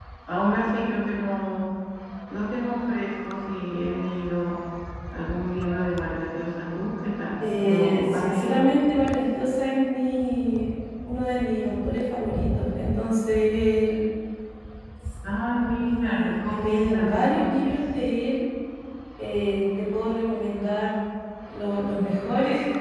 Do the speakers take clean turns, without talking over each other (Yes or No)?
No